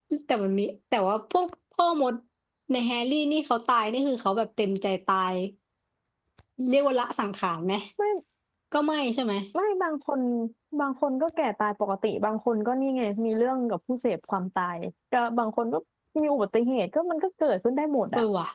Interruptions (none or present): none